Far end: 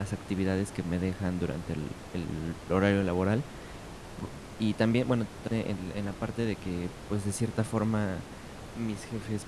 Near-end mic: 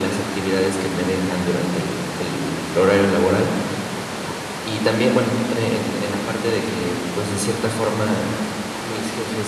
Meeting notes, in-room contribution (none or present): none